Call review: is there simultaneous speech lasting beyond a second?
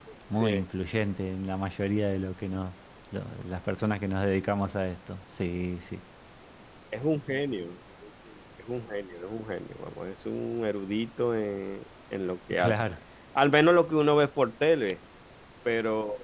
No

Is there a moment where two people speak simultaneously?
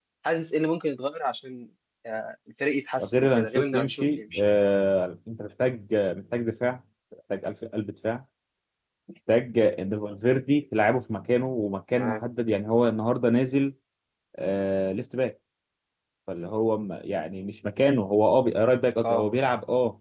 Yes, from 3.0 s

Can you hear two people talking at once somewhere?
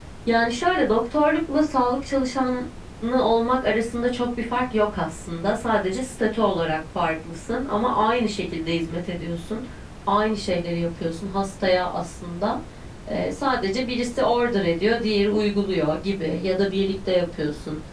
No

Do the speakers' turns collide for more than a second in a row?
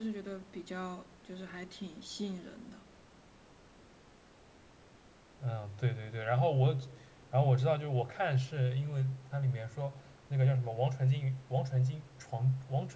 No

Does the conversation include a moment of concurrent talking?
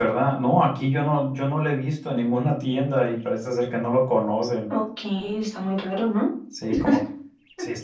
No

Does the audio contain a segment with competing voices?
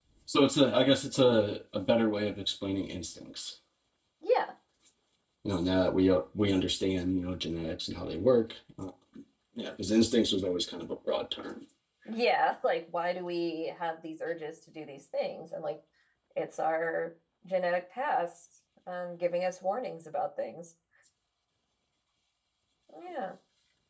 No

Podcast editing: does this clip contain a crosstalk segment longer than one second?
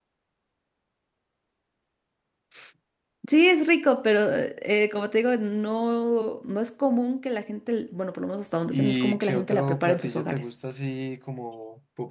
Yes, from 8.7 s

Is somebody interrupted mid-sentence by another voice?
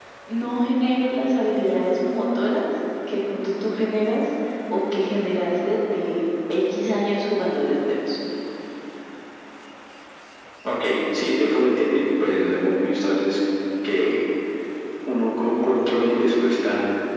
No

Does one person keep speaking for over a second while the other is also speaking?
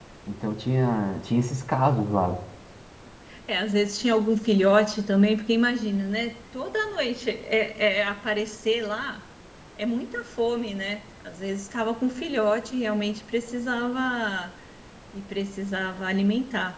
No

